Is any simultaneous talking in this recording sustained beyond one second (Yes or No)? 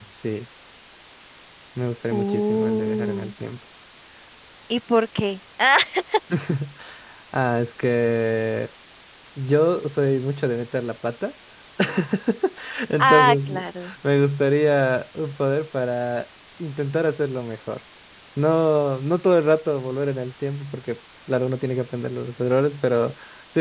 Yes